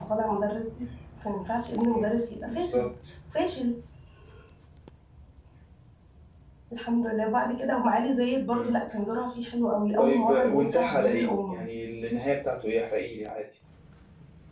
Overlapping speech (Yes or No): Yes